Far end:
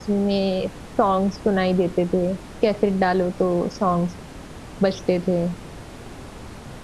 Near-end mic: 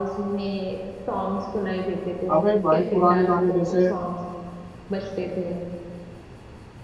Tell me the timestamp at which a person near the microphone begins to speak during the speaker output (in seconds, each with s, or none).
2.3 s